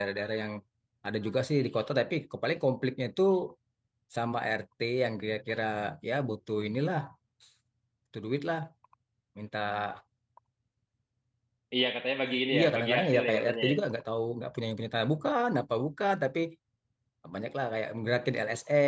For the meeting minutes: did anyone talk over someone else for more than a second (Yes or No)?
Yes